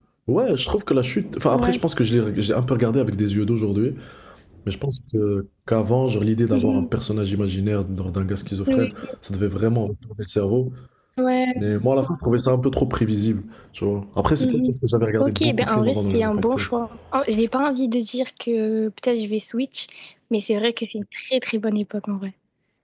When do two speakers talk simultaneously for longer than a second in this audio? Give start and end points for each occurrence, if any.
15.2-16.7

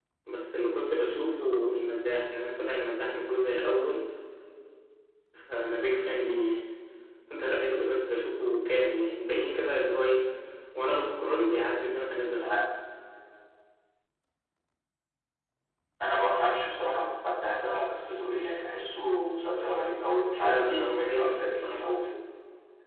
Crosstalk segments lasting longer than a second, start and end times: 20.4-21.8

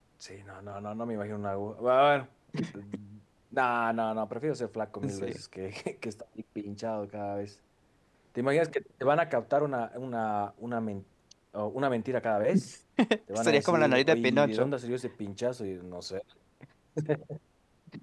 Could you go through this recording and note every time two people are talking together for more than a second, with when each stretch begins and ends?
13.3-14.7

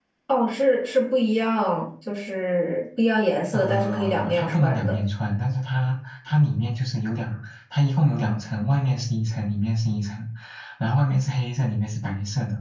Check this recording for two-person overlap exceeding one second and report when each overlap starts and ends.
3.5-5.0

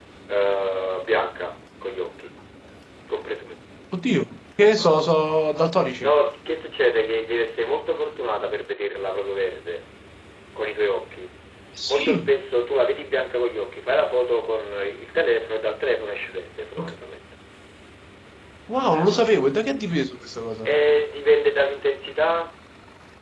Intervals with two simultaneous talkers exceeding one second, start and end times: none

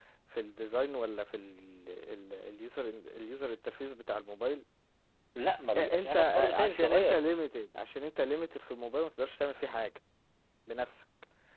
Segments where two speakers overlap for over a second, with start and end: 5.8-7.2

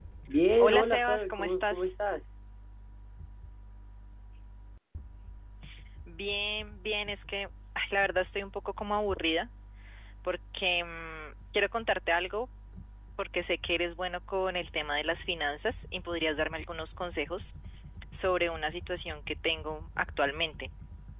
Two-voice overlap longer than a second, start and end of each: 0.6-1.9

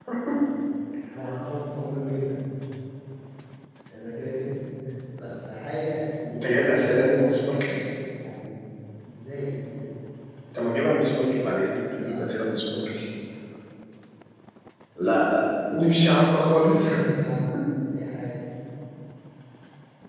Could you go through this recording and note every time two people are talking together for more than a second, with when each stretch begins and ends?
6.3-7.8

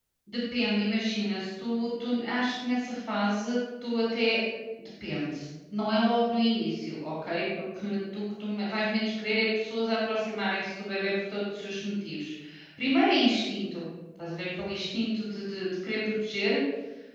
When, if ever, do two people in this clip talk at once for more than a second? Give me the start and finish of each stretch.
none

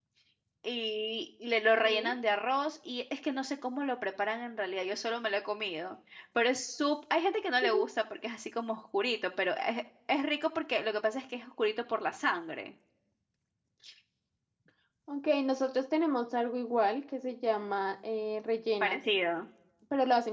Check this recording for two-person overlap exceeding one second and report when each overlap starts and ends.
none

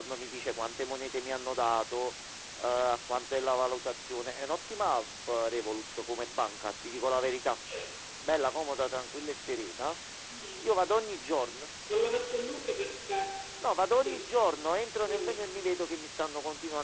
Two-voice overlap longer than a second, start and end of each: none

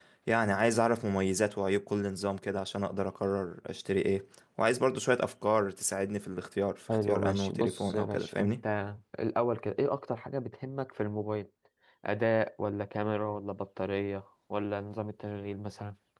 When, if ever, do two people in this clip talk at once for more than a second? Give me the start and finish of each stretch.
7.0-8.5

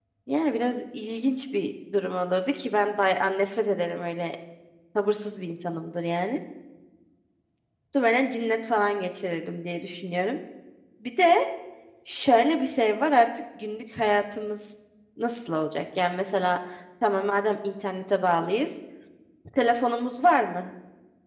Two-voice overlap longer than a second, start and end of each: none

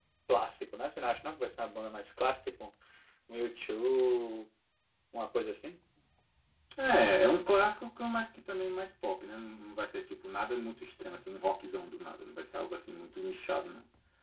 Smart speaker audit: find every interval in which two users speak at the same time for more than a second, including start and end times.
none

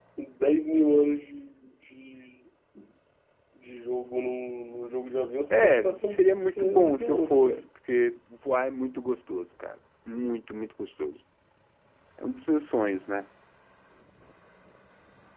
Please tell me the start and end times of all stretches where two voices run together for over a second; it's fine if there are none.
5.5-7.6

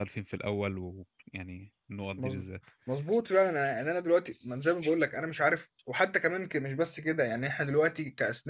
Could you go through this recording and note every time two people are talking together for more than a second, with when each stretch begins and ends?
none

